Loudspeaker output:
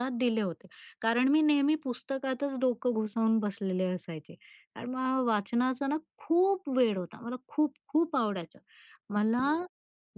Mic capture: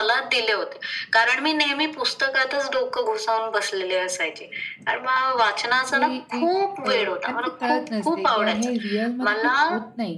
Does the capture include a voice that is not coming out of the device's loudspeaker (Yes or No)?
Yes